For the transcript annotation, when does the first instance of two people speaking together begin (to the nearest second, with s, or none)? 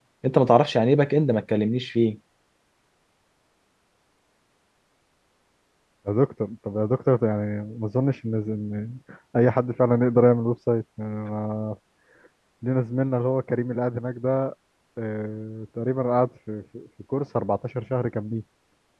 none